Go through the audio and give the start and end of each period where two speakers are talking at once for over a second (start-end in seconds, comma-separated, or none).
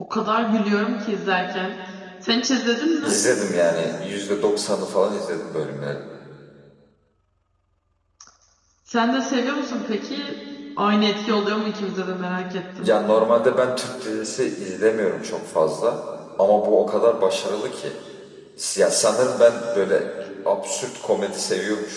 none